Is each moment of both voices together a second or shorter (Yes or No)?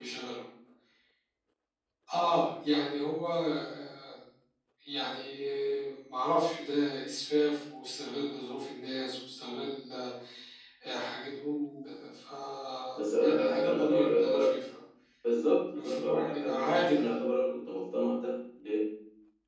No